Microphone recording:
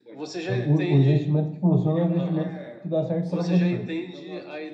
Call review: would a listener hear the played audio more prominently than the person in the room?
No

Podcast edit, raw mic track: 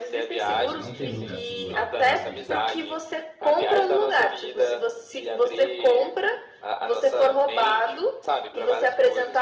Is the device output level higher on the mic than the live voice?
Yes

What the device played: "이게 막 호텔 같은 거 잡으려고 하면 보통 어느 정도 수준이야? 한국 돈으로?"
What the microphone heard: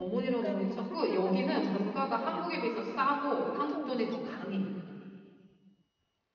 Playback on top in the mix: No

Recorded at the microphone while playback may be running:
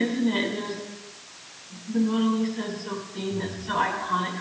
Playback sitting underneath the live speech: No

